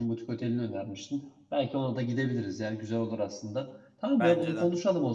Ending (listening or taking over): listening